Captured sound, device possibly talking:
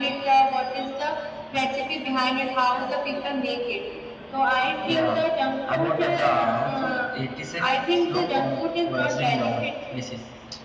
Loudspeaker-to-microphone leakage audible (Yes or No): Yes